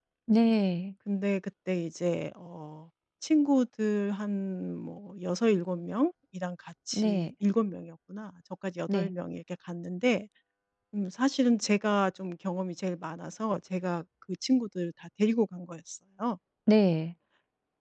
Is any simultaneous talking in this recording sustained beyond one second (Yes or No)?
No